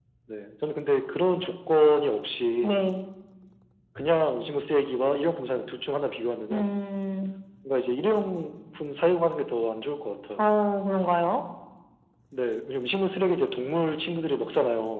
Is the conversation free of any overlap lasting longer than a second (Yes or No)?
Yes